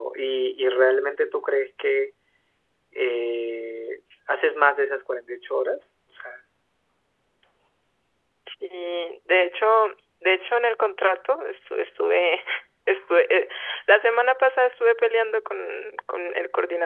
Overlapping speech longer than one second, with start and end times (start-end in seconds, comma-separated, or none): none